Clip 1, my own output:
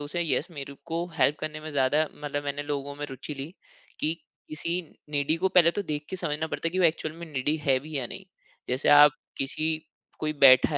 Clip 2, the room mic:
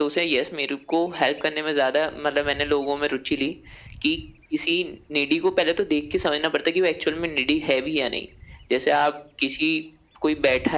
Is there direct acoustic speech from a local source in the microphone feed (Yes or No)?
No